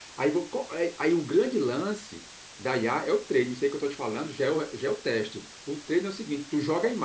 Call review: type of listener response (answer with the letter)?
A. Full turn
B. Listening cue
B